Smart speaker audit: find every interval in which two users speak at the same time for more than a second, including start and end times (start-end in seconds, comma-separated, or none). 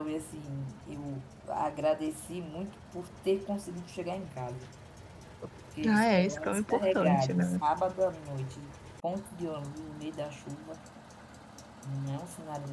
5.9-7.5